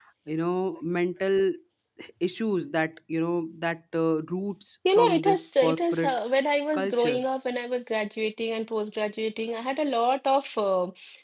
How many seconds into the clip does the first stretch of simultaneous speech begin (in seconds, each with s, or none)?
5.0 s